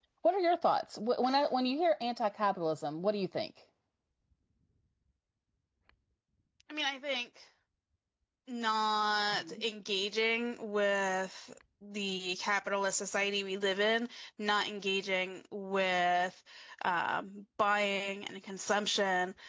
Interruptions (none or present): none